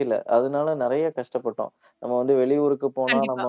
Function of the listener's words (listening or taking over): listening